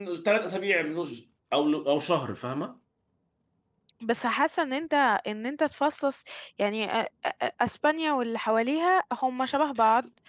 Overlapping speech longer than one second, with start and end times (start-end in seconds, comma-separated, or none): none